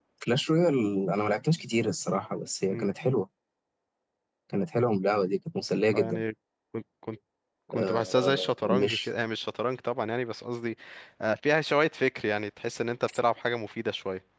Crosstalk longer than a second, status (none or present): present